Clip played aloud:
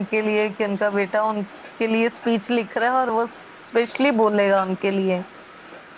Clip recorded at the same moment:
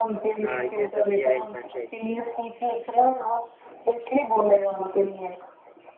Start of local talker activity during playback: 0.4 s

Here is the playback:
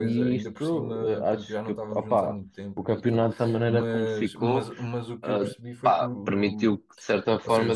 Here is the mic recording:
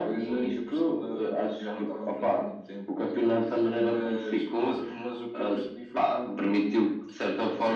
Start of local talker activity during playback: none

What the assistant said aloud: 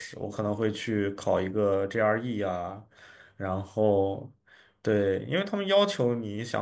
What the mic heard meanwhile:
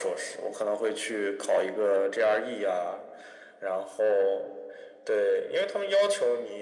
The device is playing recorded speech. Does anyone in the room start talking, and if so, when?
none

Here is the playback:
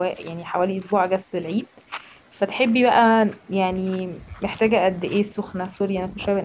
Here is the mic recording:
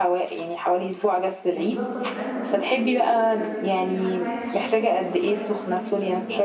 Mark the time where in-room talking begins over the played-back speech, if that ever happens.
1.5 s

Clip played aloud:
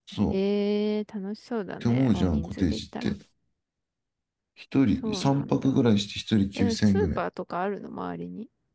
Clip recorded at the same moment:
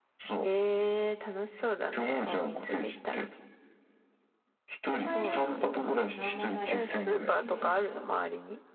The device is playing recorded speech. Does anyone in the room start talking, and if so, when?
4.9 s

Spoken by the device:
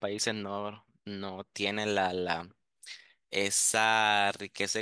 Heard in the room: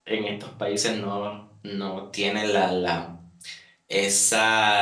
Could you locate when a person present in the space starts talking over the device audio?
none

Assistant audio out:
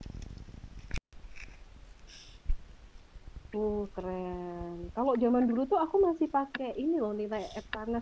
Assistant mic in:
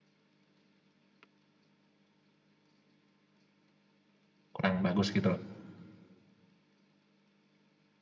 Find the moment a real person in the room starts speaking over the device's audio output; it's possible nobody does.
4.5 s

